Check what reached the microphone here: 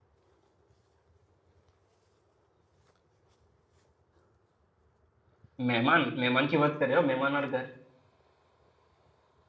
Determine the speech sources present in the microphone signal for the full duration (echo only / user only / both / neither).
user only